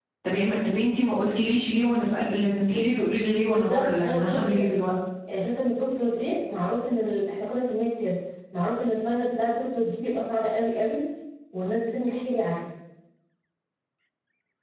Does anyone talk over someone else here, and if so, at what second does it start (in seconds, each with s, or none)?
3.5 s